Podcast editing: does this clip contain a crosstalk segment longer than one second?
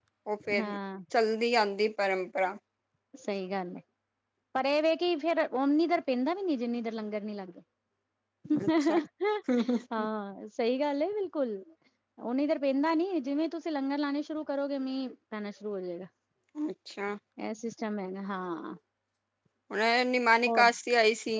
No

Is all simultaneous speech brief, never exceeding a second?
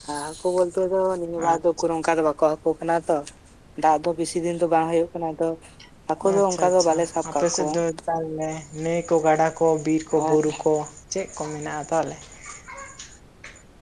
No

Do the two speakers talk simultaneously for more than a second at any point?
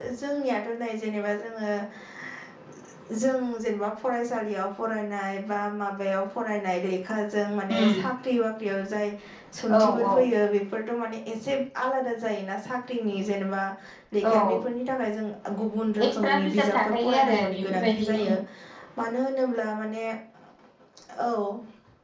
Yes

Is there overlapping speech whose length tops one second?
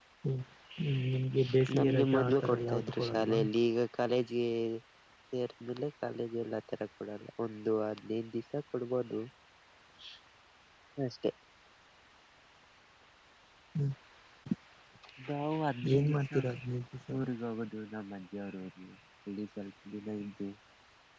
Yes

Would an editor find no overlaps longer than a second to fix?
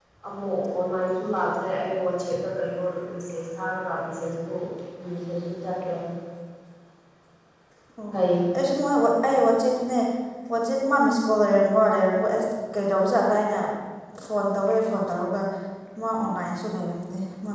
Yes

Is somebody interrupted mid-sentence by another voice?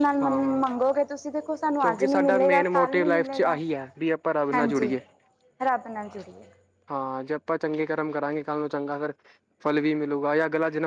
Yes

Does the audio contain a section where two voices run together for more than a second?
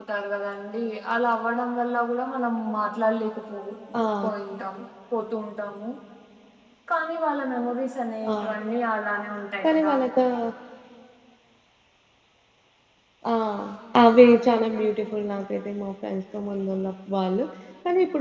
No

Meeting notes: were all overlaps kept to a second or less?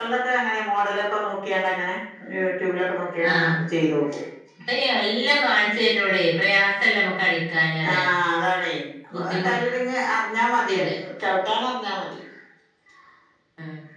Yes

